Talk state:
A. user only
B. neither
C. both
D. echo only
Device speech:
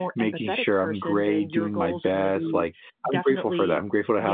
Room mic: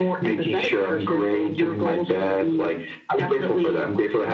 D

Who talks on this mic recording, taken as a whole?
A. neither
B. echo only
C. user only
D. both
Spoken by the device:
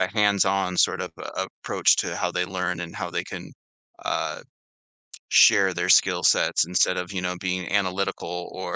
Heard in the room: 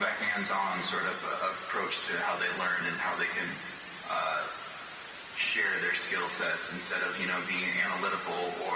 B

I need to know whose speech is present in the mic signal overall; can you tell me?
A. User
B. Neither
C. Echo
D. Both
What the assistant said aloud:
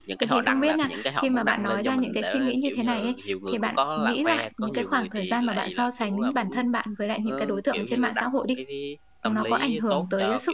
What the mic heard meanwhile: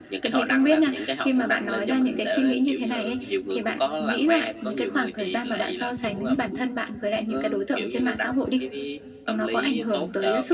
C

